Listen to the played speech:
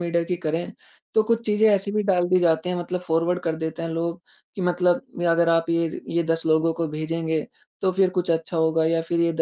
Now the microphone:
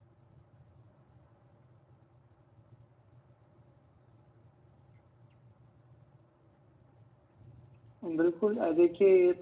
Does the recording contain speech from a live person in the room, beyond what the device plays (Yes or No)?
Yes